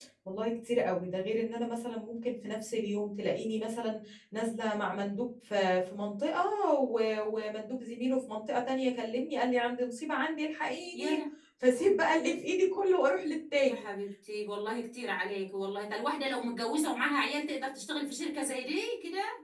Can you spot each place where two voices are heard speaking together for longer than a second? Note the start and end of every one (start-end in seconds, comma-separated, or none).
none